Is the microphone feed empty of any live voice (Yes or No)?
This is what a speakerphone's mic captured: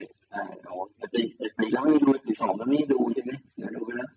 Yes